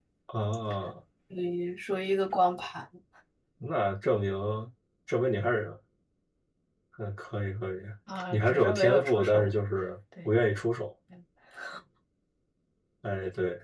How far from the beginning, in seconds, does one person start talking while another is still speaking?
8.3 s

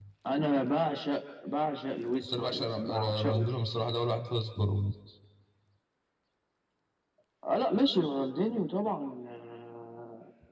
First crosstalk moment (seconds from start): 2.2 s

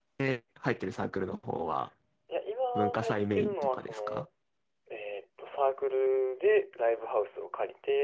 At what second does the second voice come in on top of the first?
2.8 s

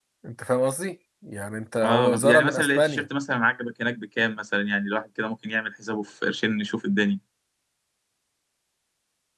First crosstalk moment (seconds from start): 1.8 s

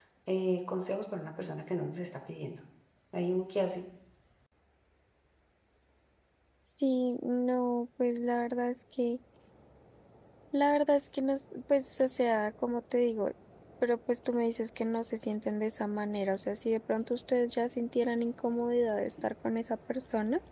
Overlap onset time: none

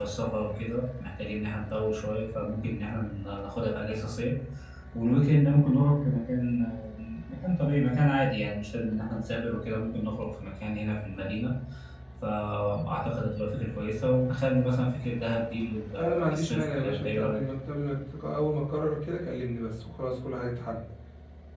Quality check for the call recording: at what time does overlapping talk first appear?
16.0 s

